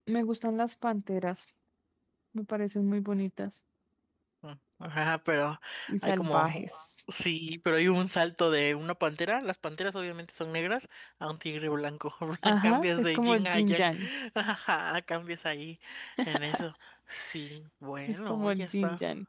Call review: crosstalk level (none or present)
present